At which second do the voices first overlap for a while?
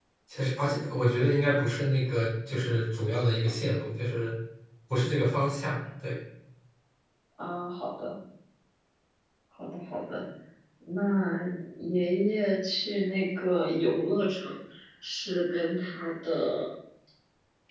none

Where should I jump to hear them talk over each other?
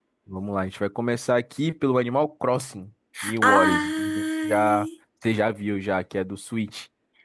3.4 s

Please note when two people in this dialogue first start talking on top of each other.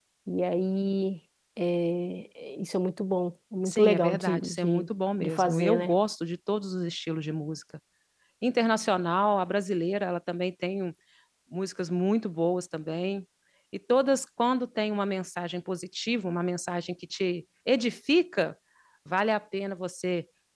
3.6 s

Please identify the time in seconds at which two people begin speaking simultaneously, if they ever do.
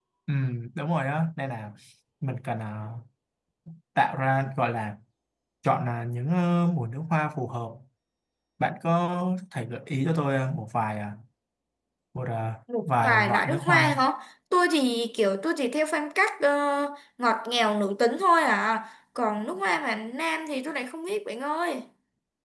12.8 s

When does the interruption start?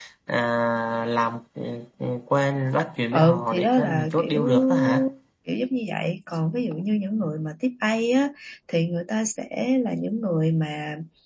3.1 s

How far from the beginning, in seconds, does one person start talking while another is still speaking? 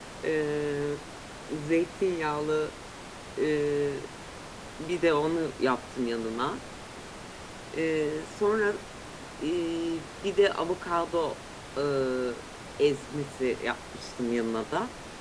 none

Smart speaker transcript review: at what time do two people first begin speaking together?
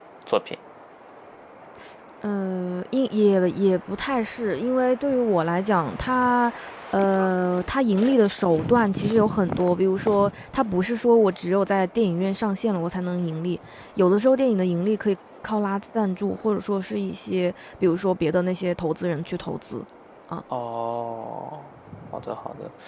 none

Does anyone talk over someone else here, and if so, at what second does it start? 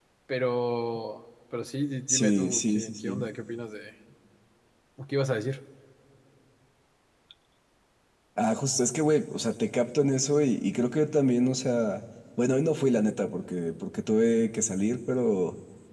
2.1 s

